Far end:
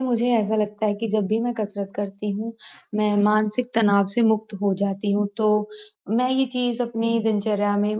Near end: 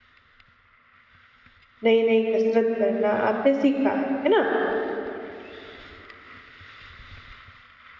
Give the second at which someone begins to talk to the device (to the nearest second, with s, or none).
2 s